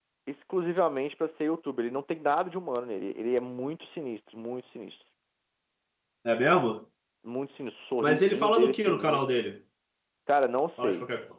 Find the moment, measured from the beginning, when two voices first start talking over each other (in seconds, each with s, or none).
8.0 s